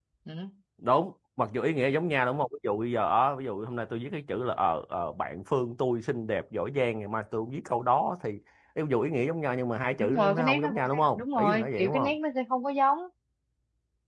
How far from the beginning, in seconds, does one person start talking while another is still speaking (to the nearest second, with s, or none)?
10 s